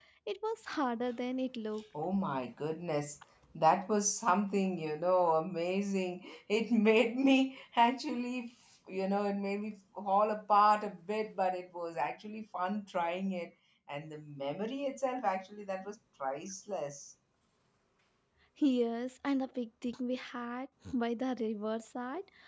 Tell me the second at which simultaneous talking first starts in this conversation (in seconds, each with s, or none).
none